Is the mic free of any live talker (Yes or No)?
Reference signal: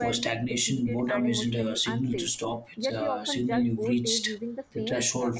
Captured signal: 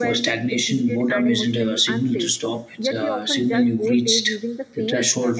Yes